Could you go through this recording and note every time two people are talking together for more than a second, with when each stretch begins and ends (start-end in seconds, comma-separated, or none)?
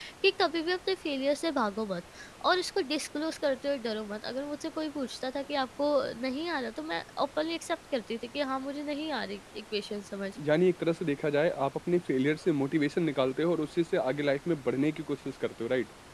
none